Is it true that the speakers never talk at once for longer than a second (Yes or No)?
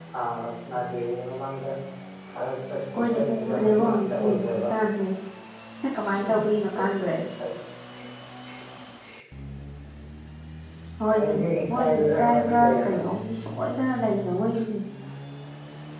No